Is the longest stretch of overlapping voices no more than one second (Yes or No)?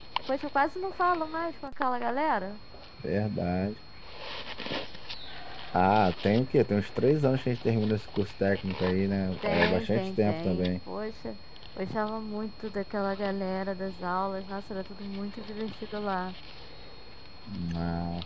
No